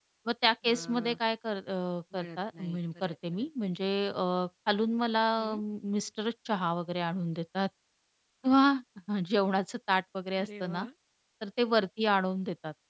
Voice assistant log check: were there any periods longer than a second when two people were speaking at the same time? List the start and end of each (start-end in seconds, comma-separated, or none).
2.2-3.4